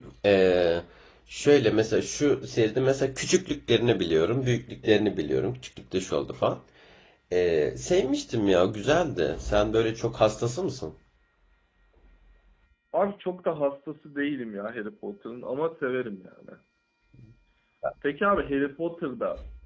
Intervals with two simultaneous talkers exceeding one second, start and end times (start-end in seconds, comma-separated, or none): none